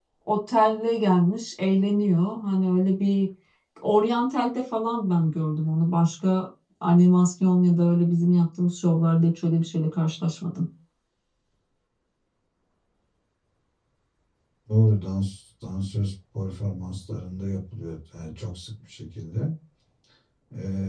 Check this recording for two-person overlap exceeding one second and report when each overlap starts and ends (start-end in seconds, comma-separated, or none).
none